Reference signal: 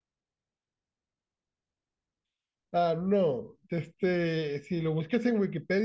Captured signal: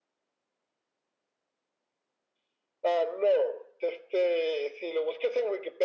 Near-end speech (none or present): none